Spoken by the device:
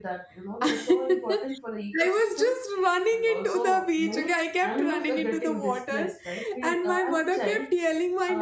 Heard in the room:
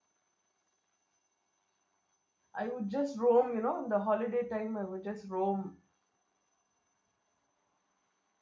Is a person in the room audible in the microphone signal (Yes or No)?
Yes